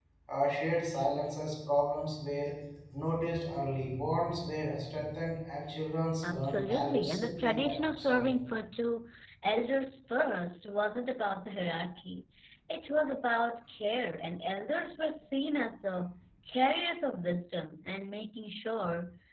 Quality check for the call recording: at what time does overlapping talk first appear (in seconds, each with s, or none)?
6.2 s